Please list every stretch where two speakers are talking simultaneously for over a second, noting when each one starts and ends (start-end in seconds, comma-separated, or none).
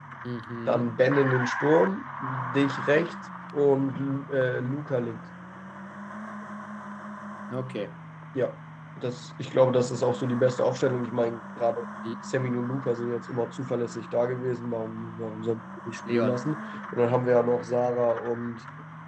none